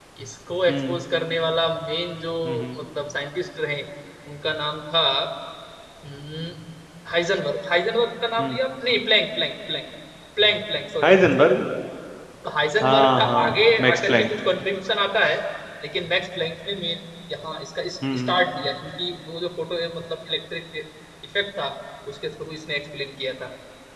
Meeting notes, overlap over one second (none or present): present